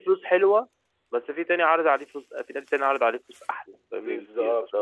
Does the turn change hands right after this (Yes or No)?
Yes